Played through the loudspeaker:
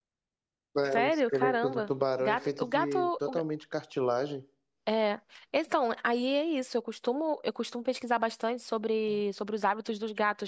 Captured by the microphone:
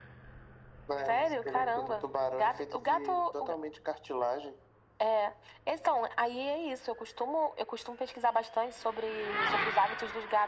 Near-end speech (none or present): none